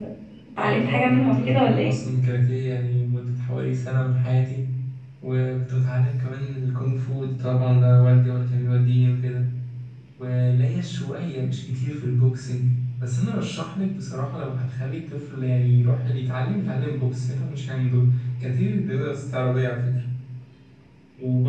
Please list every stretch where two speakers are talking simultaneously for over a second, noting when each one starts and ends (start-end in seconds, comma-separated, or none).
0.6-1.9